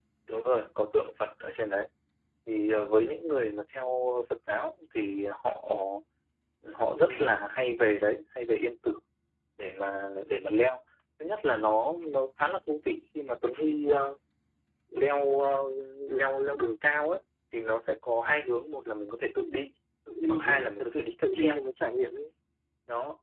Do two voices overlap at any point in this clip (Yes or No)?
Yes